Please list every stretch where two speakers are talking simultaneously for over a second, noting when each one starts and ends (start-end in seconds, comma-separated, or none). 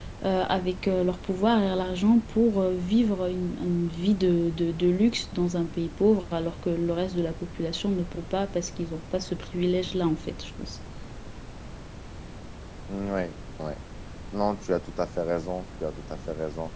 none